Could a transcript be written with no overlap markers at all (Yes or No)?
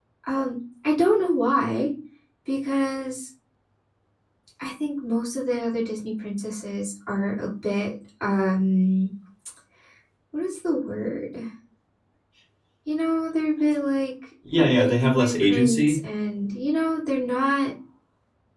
No